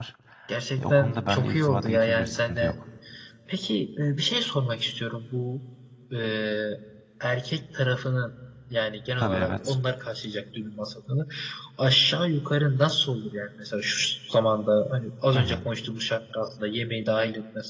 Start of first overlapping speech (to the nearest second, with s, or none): 1 s